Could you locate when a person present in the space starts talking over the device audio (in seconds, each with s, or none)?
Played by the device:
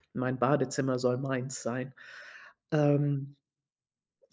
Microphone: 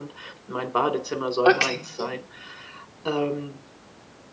1.5 s